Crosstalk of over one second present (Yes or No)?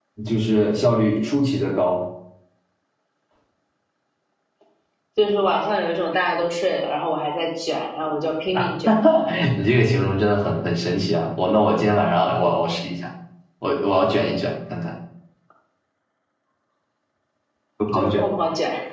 No